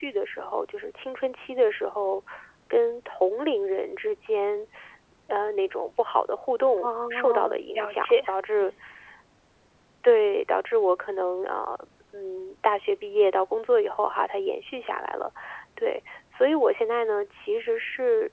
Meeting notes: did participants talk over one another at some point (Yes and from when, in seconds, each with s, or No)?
Yes, from 6.8 s